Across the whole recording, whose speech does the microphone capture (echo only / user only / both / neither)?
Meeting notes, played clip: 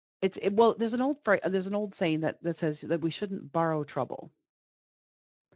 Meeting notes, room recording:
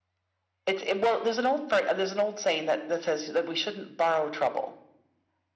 echo only